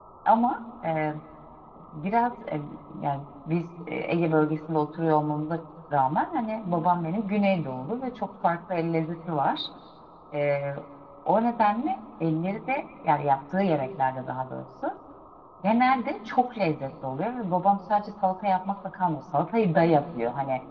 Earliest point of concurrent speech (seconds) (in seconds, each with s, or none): none